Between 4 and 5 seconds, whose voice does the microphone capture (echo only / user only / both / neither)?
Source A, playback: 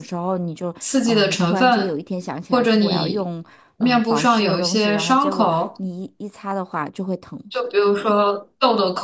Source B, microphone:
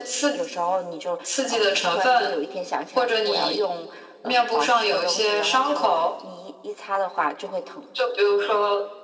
echo only